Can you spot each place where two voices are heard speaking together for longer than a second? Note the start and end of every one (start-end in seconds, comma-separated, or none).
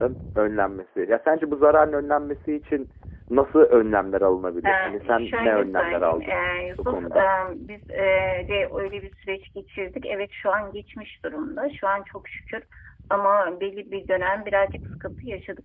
4.7-6.4